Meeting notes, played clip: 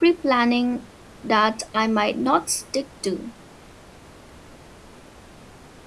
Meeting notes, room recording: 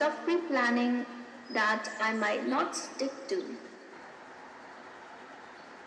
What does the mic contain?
echo only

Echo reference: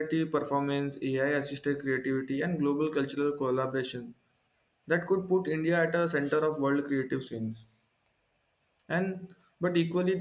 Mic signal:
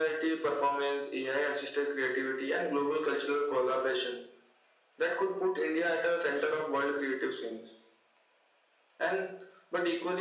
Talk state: echo only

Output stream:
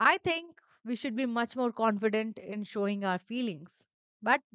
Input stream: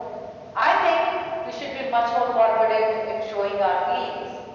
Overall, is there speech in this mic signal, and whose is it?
echo only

